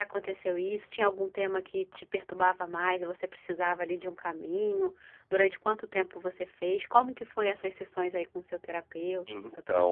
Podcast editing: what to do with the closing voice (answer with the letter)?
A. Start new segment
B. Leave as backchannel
A